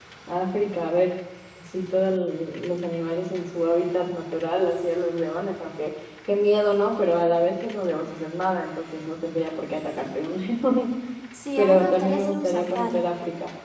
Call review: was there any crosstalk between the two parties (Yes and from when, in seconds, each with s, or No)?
Yes, from 11.6 s